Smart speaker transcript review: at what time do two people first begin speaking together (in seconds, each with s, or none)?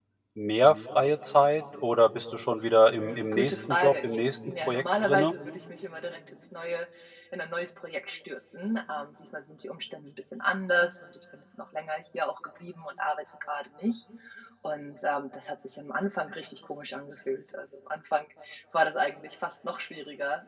3.0 s